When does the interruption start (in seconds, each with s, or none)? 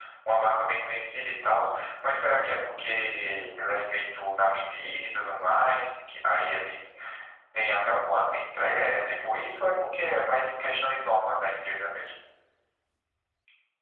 none